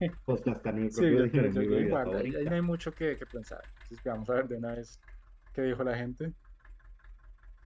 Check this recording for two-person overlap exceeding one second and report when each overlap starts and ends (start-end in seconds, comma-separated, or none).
0.9-2.5